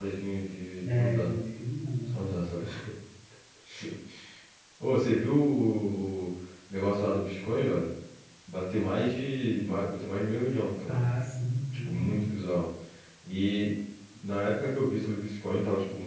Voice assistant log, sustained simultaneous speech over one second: none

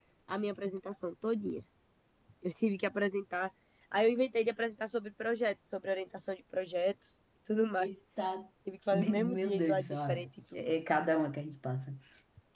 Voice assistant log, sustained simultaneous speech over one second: present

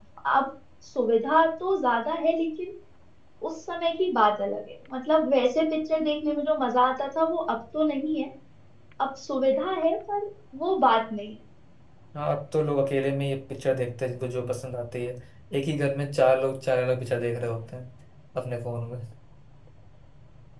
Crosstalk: none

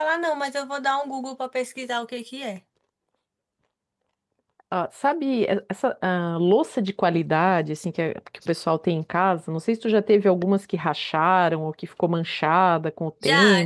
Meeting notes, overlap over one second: none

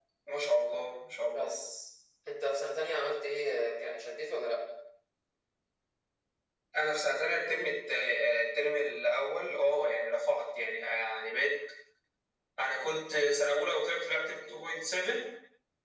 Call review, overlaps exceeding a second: none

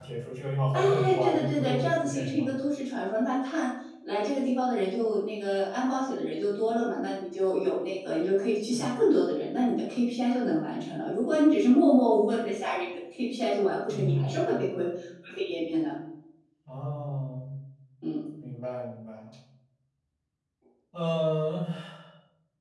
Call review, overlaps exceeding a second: present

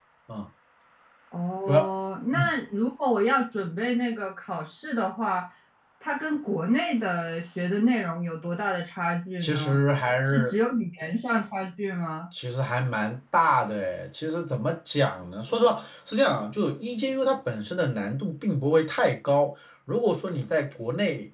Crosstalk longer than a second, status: none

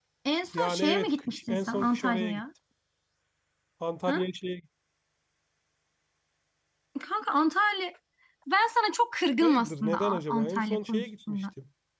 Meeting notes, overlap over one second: present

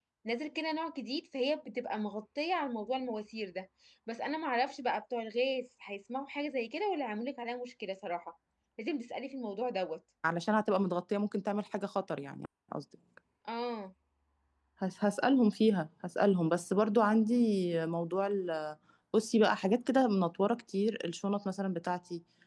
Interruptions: none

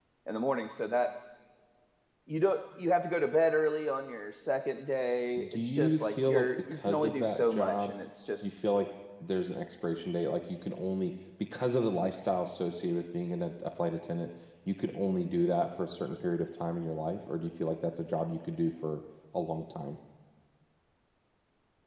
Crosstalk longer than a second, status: present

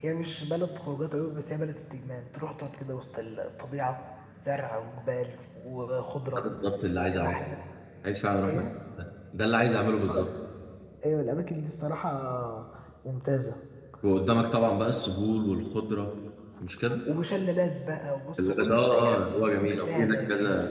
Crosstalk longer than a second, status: present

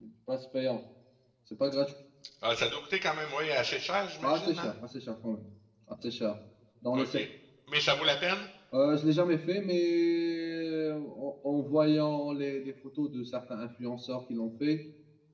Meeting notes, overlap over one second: none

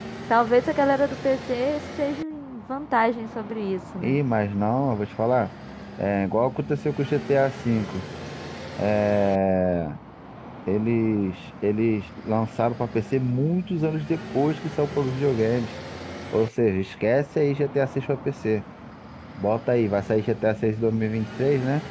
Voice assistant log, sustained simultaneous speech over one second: none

